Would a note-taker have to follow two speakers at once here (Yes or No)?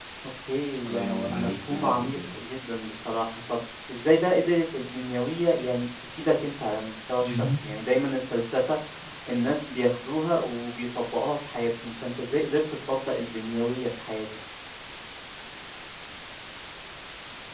Yes